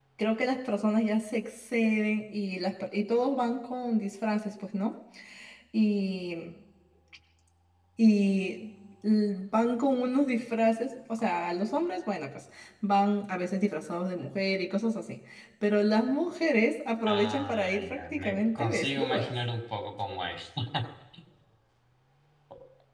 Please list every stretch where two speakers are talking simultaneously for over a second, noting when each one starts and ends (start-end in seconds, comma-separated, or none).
17.1-19.3